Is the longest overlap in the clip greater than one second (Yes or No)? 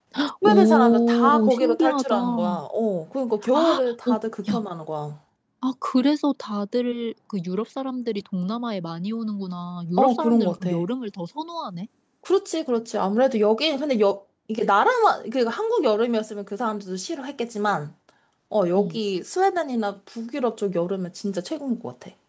Yes